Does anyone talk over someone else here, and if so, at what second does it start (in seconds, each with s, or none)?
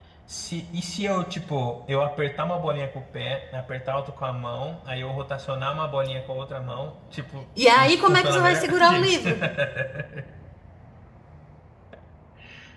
7.6 s